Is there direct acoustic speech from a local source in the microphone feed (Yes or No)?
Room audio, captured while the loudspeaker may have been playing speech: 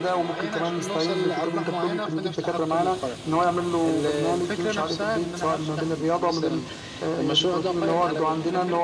No